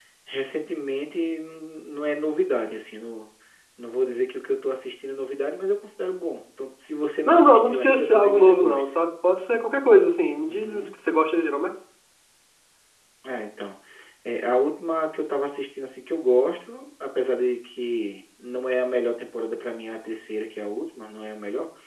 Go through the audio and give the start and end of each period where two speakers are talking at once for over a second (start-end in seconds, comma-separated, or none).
7.2-8.9